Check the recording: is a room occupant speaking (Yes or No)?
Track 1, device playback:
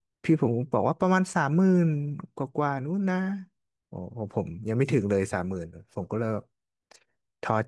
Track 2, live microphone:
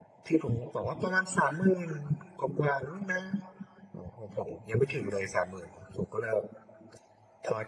No